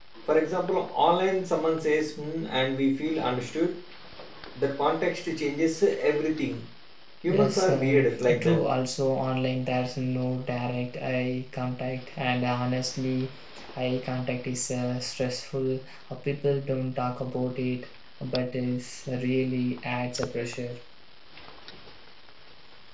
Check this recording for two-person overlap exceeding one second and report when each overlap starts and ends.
7.3-8.6

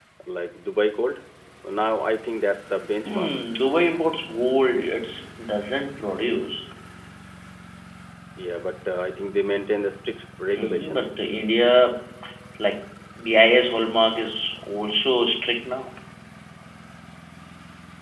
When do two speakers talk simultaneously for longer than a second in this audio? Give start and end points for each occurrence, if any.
none

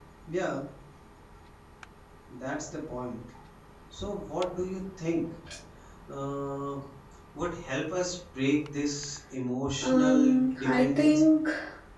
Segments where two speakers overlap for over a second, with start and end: 9.8-11.3

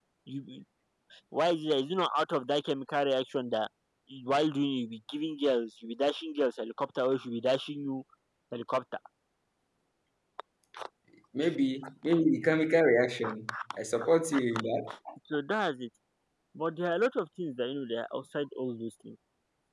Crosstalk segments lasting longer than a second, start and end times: none

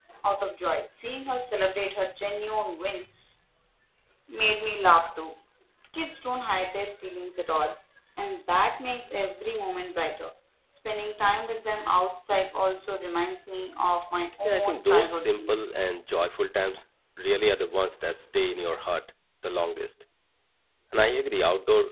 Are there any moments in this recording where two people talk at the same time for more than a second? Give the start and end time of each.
14.4-15.8

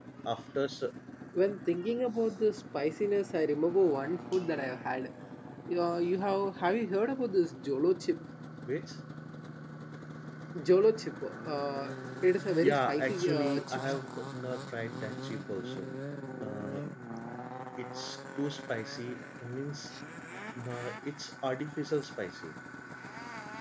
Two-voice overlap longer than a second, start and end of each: 12.6-13.9

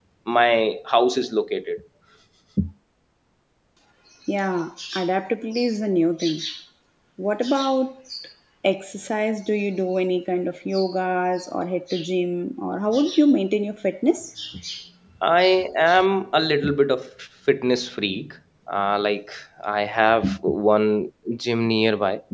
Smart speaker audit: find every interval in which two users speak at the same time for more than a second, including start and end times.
none

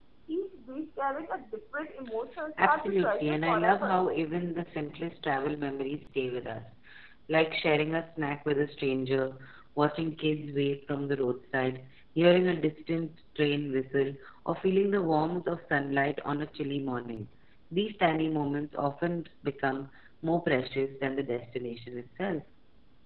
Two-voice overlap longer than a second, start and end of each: 2.6-4.0

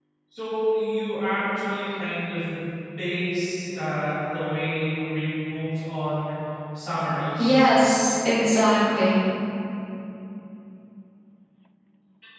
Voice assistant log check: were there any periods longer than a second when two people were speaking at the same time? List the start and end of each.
none

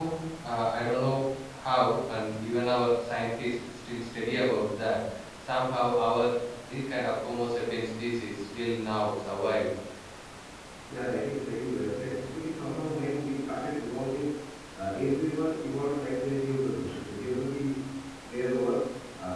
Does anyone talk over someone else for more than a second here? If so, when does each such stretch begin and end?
none

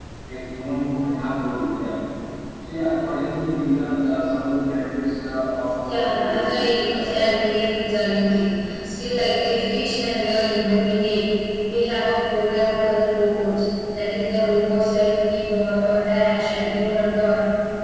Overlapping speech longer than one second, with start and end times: 5.8-7.3

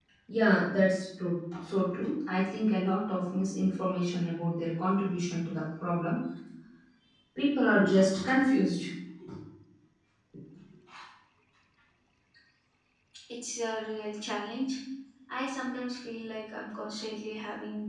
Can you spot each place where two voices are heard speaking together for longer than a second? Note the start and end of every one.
none

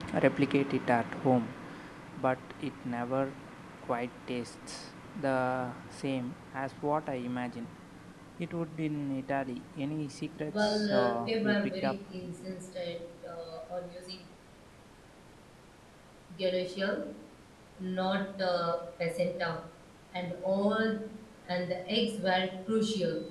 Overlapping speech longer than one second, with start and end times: 10.5-11.9

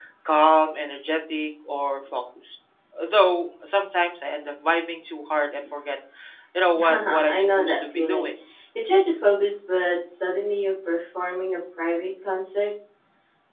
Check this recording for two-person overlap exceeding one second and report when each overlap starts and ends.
6.9-8.3

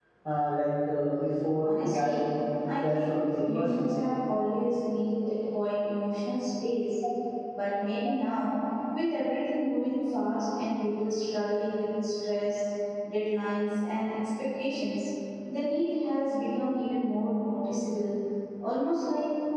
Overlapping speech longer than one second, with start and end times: 2.8-4.0

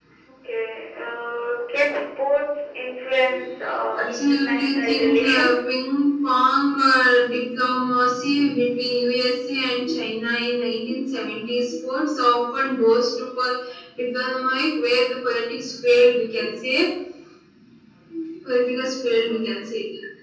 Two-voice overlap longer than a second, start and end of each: 4.0-5.5

